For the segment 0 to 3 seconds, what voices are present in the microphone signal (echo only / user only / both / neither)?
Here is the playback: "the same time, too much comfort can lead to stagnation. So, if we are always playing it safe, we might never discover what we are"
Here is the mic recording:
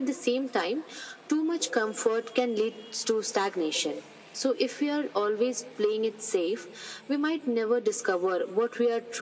echo only